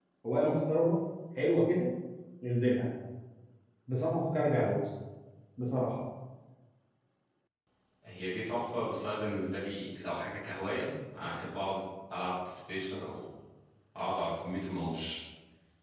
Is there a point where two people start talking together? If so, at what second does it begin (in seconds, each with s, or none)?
none